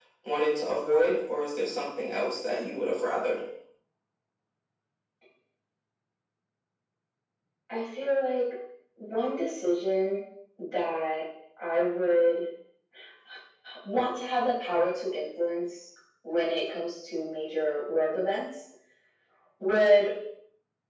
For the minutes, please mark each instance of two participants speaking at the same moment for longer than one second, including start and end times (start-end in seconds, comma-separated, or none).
none